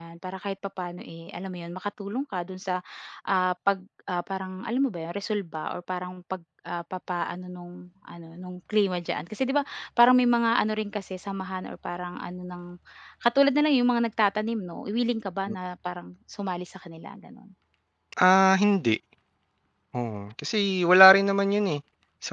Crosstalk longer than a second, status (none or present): none